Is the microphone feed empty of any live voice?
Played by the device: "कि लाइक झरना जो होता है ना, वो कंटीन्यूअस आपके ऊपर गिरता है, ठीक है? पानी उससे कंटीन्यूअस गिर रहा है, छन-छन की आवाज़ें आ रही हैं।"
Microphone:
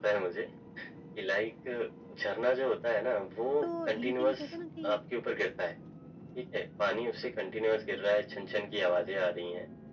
No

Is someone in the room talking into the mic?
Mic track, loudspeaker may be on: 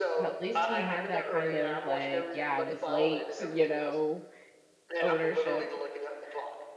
Yes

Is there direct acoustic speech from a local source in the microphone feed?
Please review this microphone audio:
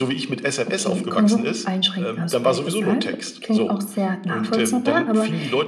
No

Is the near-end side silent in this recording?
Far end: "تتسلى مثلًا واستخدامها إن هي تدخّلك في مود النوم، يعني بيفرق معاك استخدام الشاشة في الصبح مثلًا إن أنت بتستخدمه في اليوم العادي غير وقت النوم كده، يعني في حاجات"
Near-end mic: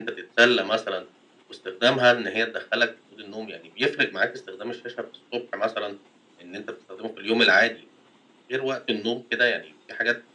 Yes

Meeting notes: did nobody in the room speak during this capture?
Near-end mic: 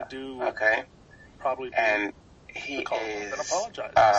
Yes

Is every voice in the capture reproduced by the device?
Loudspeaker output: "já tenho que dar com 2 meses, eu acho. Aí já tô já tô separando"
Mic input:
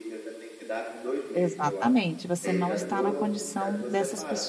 No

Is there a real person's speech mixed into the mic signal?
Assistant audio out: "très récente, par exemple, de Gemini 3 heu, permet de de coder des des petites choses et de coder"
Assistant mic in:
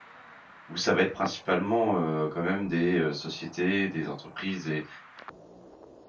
Yes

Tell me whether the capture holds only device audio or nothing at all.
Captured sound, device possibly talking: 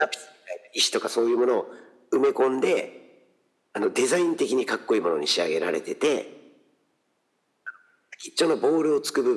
Yes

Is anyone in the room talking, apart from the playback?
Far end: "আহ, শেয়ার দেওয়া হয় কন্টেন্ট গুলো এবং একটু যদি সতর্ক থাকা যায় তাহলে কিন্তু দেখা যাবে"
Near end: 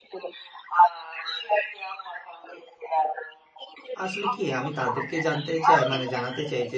Yes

